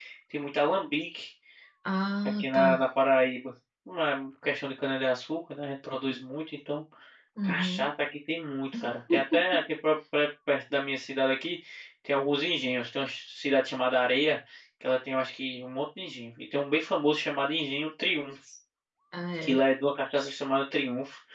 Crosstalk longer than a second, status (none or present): none